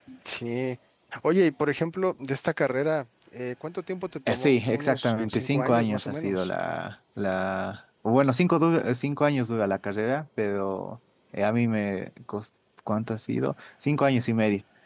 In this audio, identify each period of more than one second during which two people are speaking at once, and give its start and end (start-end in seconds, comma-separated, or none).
4.3-6.5